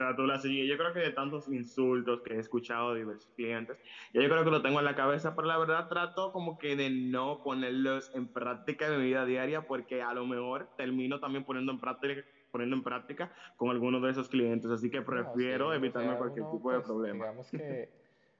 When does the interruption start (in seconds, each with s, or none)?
15.0 s